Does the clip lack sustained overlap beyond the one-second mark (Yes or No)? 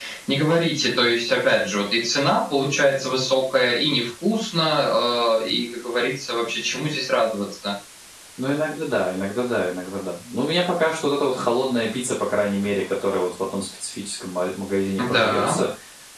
Yes